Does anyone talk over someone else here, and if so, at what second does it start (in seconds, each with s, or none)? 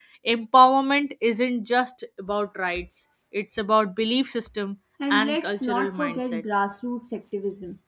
5.0 s